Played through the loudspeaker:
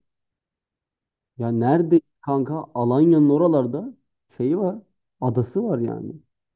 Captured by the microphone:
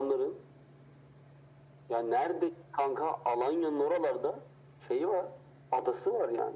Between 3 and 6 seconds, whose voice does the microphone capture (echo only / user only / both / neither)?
echo only